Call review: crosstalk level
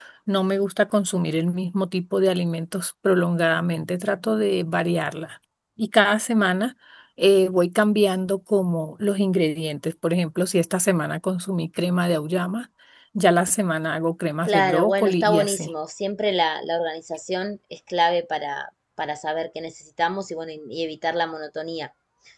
present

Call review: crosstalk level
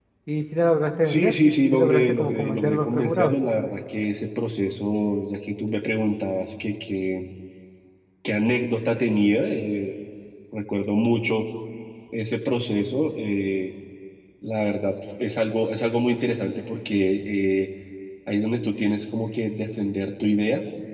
present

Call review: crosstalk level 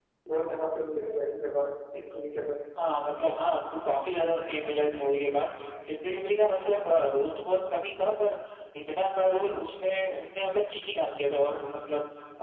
none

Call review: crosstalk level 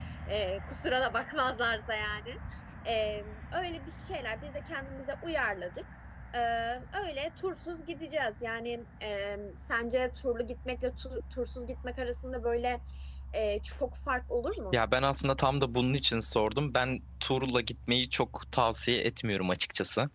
none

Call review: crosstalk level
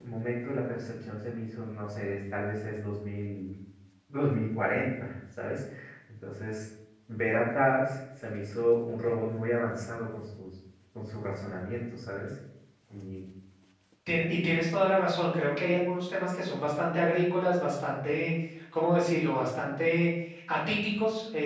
none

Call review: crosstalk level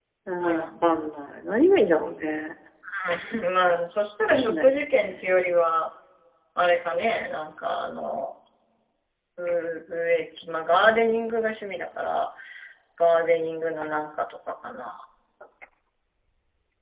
present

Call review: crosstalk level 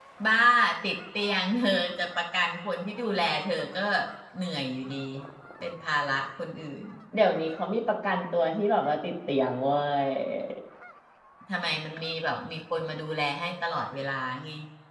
none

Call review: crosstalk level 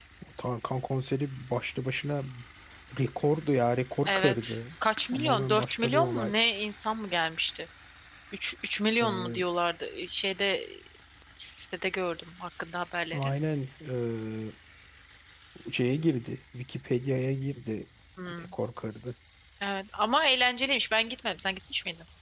present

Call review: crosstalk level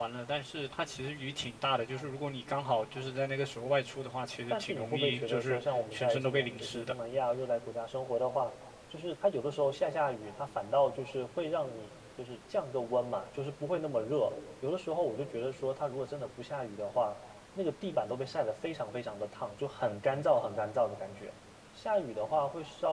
present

